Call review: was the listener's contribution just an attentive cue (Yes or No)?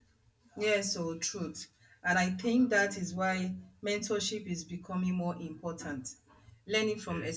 Yes